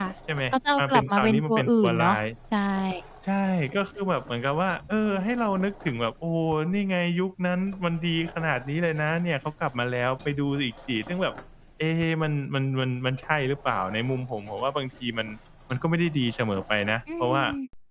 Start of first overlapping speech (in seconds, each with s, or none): 0.5 s